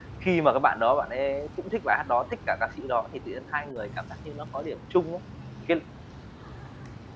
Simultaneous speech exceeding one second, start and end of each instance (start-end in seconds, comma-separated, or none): none